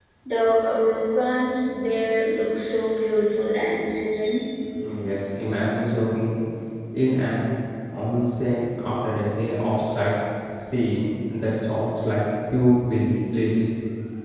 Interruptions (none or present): none